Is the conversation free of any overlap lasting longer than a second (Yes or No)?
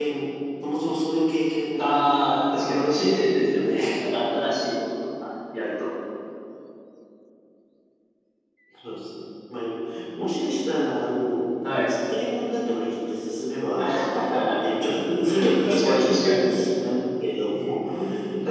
No